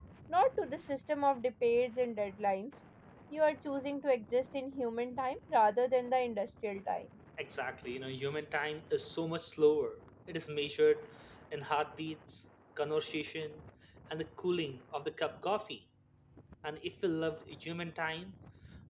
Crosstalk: none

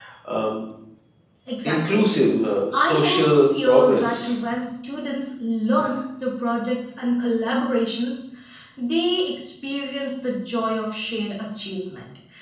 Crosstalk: present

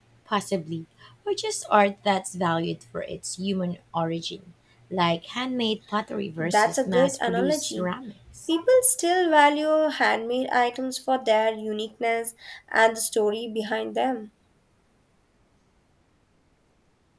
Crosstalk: present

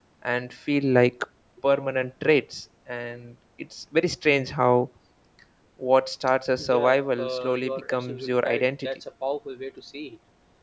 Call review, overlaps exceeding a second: present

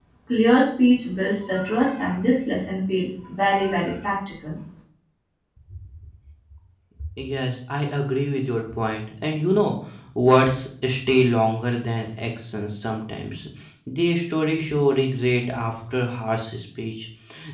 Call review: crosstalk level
none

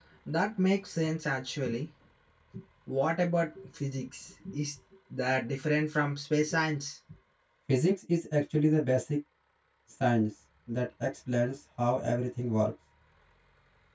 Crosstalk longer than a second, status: none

